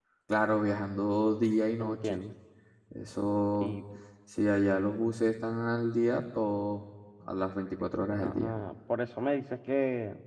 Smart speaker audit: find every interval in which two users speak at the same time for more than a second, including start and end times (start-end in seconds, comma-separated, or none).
none